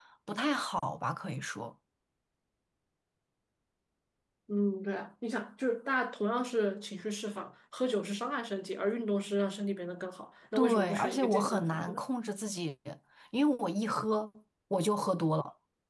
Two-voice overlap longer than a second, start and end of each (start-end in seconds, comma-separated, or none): 10.5-12.0